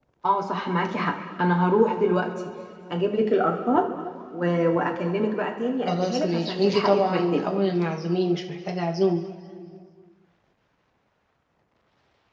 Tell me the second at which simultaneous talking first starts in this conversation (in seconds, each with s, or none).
5.9 s